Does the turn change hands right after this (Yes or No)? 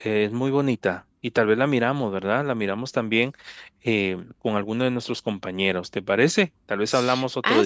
Yes